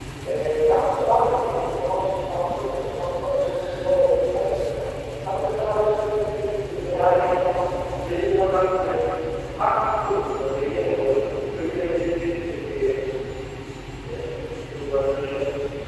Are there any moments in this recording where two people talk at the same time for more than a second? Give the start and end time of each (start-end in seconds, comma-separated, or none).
none